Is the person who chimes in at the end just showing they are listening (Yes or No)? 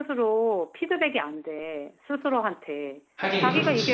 Yes